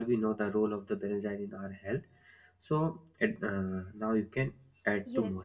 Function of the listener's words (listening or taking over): taking over